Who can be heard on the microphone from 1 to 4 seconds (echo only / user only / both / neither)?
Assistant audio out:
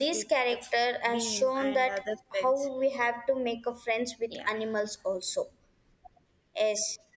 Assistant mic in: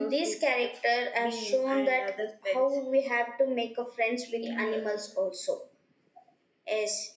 echo only